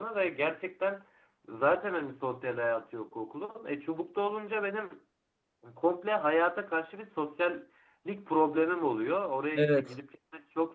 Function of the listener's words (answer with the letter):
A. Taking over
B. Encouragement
B